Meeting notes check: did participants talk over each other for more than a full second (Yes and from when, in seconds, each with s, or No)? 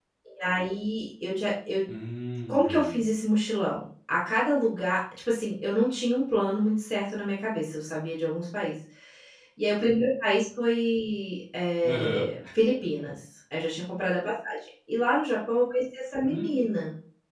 No